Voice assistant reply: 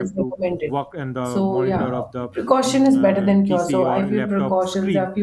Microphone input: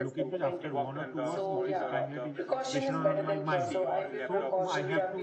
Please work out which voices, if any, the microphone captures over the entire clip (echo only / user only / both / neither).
both